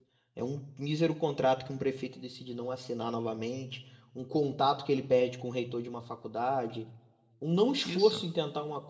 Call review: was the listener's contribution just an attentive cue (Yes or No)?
Yes